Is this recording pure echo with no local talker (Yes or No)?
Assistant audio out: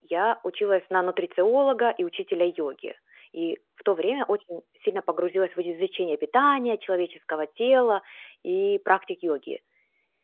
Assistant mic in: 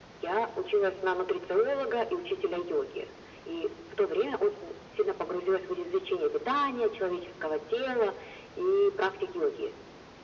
Yes